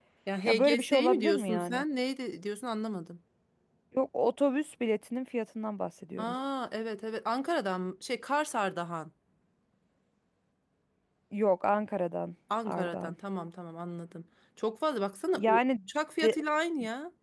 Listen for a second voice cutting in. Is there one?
Yes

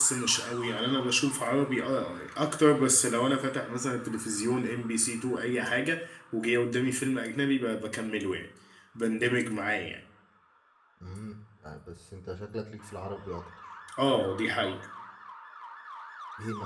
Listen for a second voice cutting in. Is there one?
No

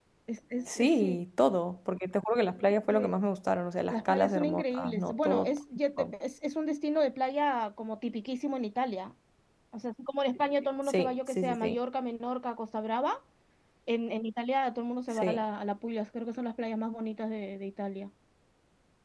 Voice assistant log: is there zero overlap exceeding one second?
No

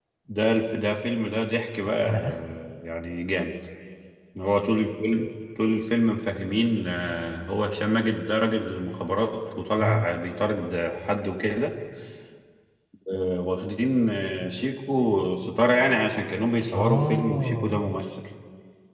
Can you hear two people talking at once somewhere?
Yes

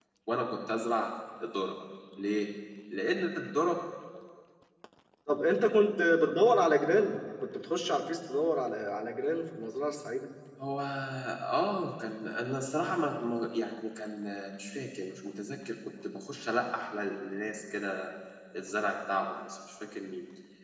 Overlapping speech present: No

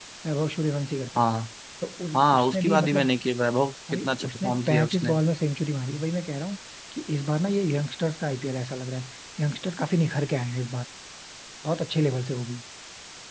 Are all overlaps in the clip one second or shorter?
No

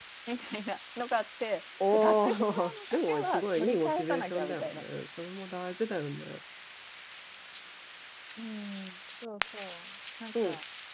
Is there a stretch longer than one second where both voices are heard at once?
Yes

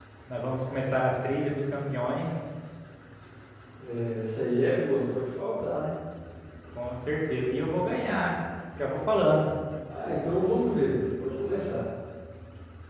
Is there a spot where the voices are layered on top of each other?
No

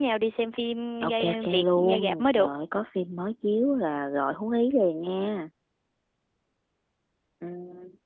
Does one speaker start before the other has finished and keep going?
Yes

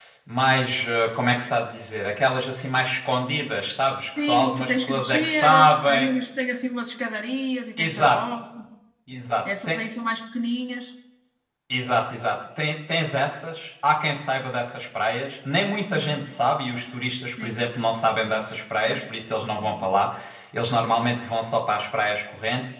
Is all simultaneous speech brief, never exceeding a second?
No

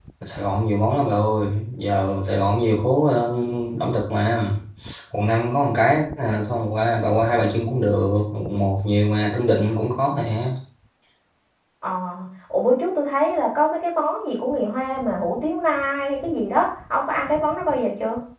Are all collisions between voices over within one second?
Yes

